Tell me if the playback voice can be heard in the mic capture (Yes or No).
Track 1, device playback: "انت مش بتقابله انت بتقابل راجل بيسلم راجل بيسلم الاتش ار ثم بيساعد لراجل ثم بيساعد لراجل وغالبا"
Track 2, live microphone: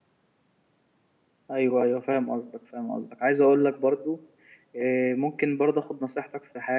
No